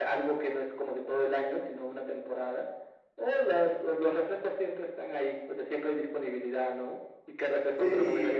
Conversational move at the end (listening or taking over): listening